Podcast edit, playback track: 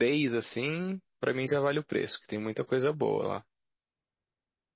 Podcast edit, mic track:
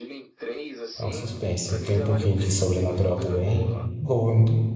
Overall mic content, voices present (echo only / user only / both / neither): both